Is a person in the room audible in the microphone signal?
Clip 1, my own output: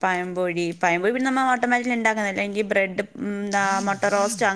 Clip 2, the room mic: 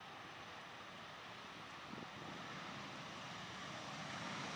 No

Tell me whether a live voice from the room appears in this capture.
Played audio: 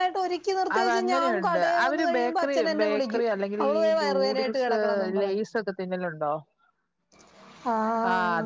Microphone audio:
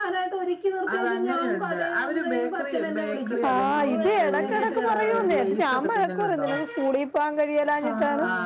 Yes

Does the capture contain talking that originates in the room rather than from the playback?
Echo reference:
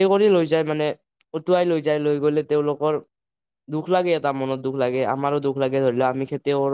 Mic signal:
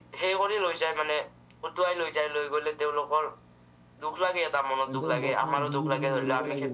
Yes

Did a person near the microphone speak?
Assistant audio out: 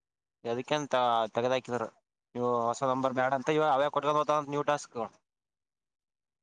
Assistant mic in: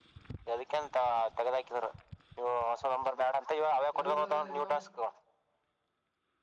Yes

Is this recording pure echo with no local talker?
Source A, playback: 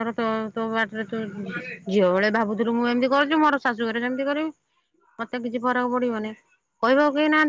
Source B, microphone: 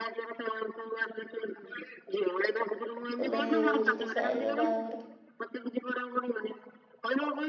No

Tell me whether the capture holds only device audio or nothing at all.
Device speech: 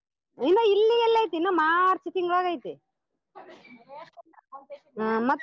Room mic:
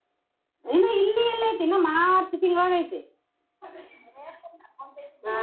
Yes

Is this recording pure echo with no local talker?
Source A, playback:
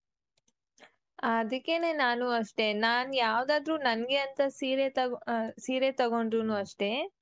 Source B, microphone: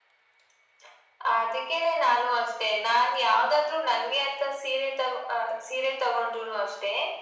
Yes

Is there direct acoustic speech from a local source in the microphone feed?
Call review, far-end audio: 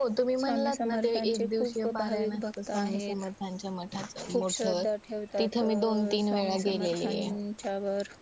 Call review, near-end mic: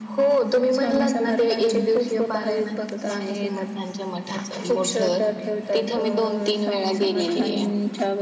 No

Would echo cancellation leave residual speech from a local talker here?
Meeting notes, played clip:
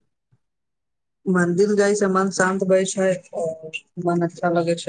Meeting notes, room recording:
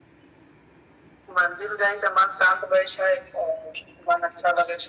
No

